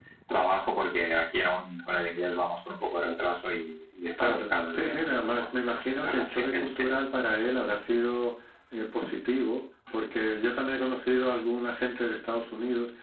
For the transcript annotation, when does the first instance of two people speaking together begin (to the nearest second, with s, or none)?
4 s